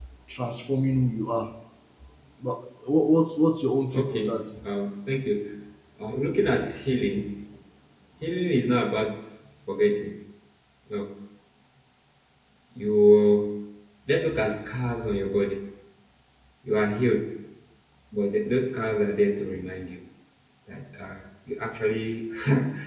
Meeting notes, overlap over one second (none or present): none